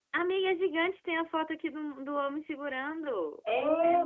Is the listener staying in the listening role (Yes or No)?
No